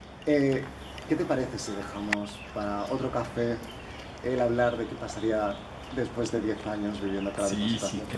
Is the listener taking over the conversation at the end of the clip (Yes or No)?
Yes